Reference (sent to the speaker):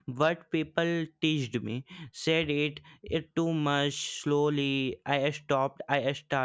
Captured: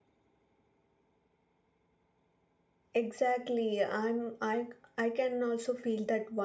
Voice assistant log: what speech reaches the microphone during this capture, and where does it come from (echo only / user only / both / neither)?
user only